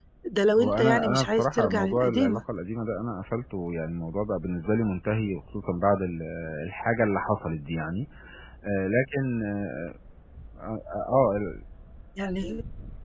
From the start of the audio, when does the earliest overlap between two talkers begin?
1 s

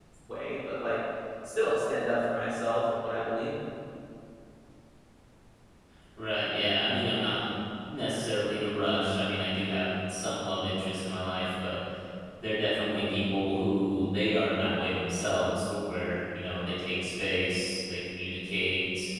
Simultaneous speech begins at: none

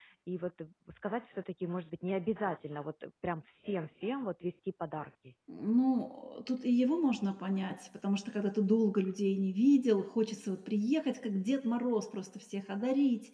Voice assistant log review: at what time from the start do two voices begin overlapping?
none

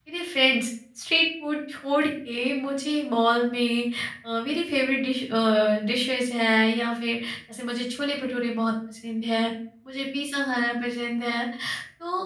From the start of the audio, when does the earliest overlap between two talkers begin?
none

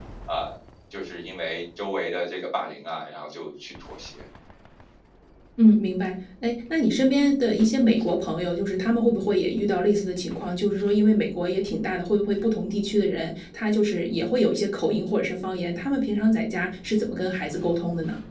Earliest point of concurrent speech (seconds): none

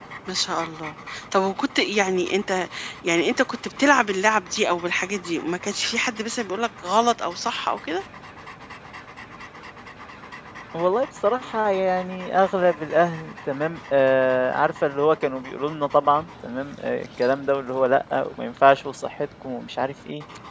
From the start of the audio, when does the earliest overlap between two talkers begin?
none

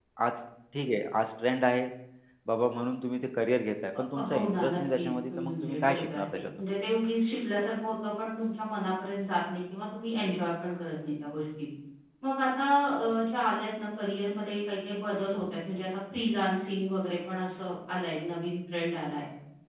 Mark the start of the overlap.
4 s

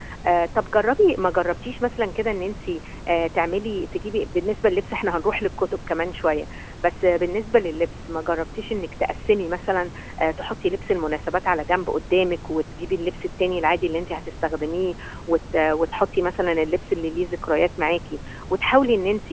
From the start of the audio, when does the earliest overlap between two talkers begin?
none

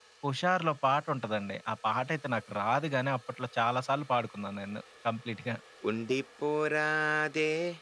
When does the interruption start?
none

